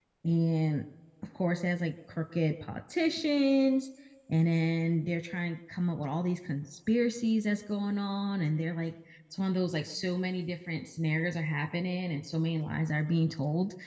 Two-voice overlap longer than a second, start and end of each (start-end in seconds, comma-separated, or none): none